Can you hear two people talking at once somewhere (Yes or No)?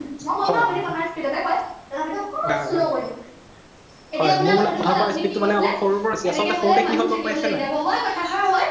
Yes